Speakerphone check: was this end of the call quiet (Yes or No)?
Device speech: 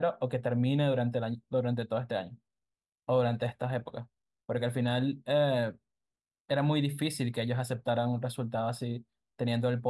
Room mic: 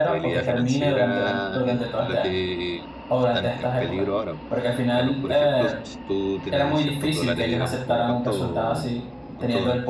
No